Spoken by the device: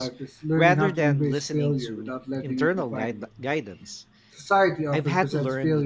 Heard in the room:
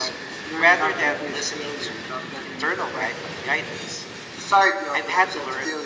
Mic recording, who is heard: echo only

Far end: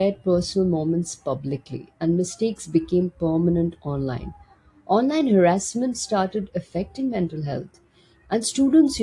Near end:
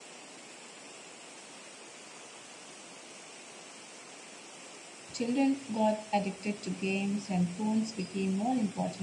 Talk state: user only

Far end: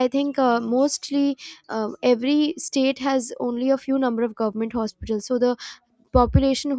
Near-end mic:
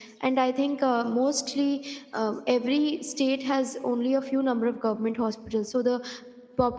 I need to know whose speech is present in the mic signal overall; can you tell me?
echo only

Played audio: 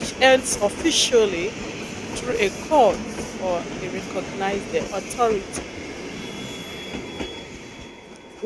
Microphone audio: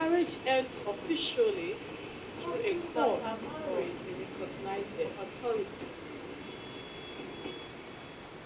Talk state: both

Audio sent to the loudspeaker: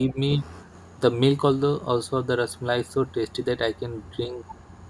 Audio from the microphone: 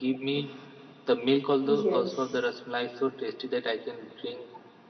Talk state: both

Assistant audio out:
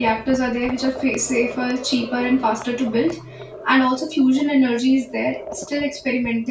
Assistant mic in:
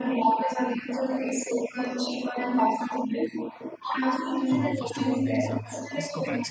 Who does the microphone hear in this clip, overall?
both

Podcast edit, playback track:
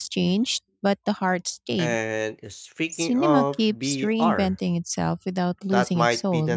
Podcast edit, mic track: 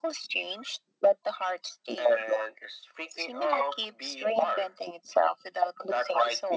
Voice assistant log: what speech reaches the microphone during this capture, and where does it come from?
echo only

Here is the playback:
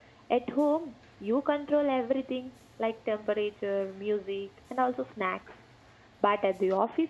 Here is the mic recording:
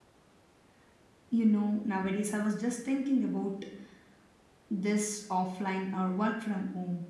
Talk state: user only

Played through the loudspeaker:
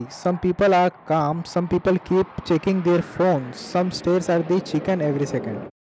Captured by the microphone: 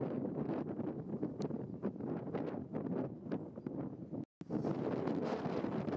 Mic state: neither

